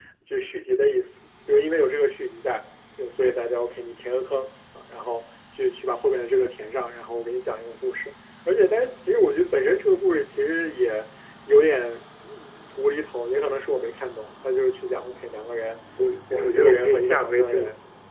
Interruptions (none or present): present